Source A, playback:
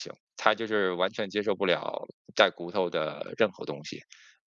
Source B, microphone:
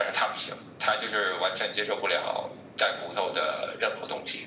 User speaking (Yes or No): No